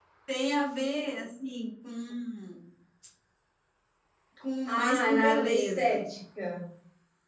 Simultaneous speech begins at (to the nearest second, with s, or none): 5 s